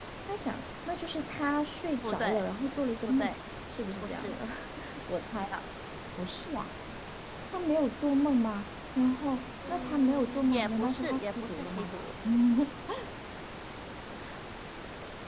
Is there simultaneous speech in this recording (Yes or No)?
Yes